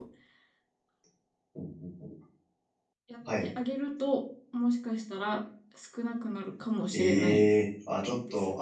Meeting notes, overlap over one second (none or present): none